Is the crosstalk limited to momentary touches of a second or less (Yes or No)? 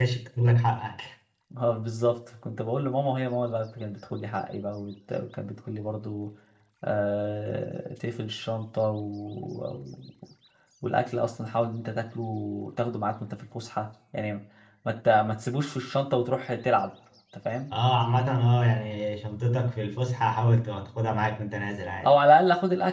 Yes